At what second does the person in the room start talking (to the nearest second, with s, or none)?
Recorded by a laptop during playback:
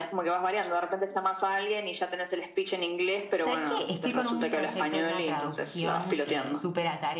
3 s